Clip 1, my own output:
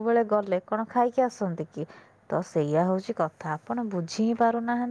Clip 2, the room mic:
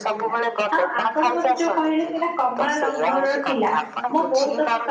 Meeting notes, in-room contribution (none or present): present